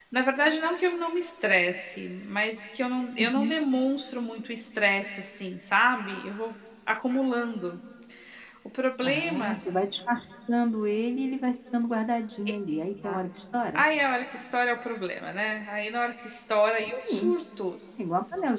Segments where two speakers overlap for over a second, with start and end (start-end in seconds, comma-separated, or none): none